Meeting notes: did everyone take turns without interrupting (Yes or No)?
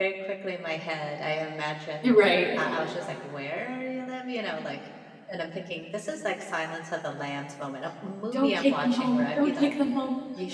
No